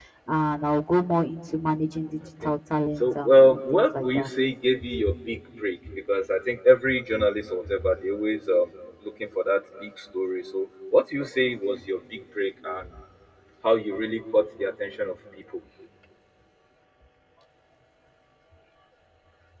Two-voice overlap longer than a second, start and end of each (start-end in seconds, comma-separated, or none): 3.0-4.3